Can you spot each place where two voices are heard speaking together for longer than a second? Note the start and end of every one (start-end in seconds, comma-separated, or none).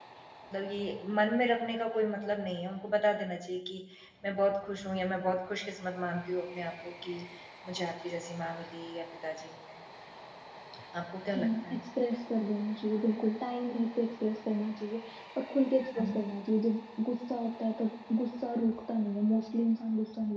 none